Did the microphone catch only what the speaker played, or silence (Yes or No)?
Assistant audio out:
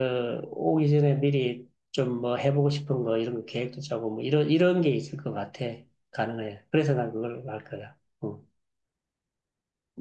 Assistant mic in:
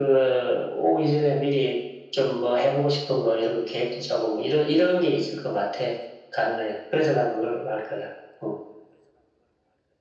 Yes